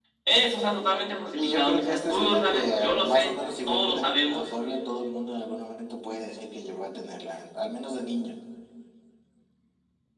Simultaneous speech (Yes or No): Yes